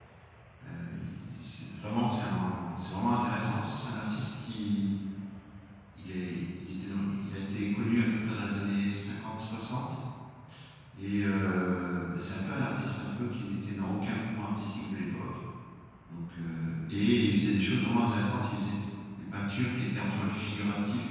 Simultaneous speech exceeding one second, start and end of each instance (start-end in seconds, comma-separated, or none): none